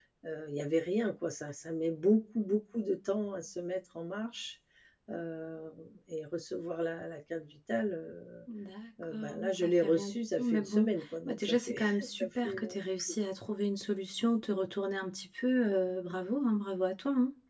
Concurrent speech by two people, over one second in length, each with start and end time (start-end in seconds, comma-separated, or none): 9.1-10.9, 11.2-13.2